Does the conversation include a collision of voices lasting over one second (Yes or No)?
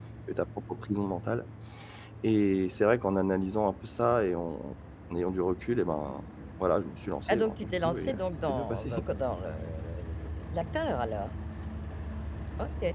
Yes